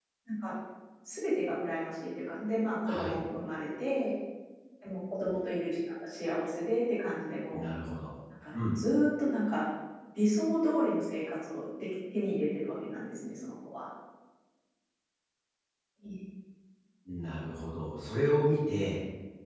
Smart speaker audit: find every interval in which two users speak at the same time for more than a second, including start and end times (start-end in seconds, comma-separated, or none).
none